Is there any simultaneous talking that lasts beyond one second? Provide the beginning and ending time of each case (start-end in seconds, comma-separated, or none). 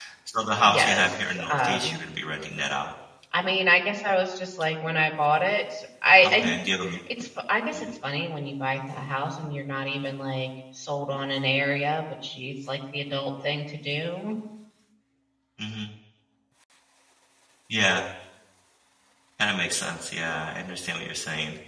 0.6-2.0